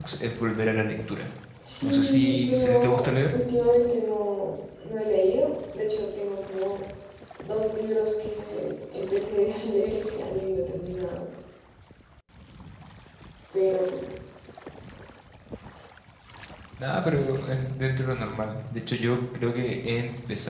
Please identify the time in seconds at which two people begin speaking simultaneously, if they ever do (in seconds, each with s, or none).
1.8 s